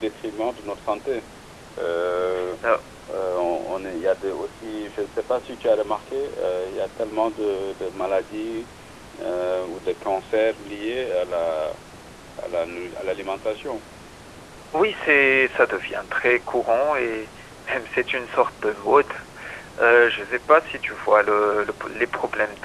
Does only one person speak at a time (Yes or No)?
Yes